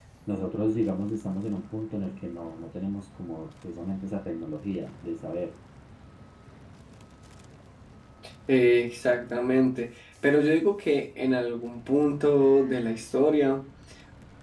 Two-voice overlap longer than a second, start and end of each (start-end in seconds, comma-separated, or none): none